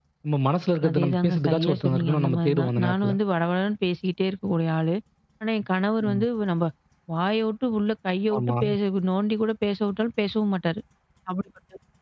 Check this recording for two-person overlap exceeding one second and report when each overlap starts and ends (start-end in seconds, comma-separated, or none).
0.9-3.1